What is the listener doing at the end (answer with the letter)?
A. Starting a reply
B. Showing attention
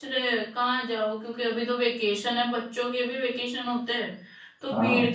B